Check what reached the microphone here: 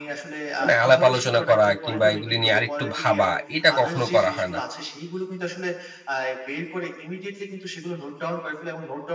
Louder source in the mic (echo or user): user